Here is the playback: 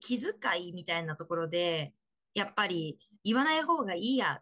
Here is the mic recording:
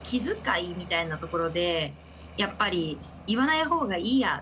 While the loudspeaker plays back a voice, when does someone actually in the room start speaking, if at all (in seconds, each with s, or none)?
none